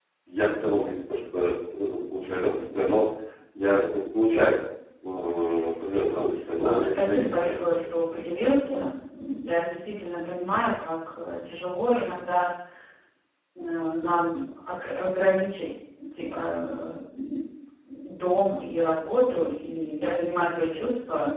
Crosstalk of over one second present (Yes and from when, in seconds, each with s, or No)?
Yes, from 6.6 s